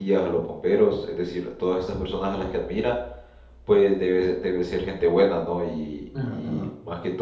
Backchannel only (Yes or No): Yes